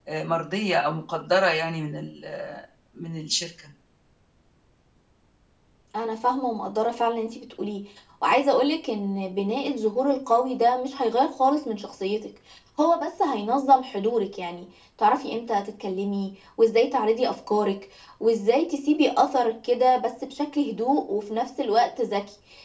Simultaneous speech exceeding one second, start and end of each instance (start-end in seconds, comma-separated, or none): none